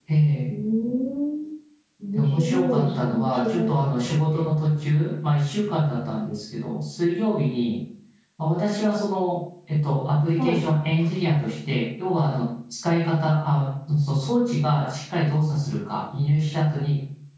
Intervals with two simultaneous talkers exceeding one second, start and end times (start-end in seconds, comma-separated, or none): 2.1-4.2